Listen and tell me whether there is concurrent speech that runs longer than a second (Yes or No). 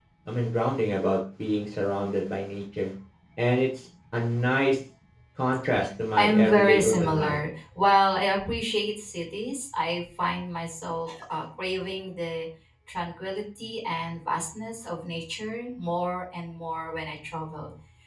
Yes